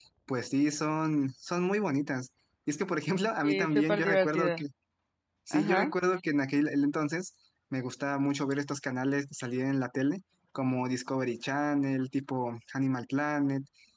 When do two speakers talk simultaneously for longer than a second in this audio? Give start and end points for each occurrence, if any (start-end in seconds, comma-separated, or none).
3.4-4.6